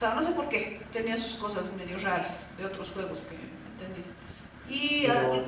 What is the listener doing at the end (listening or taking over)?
listening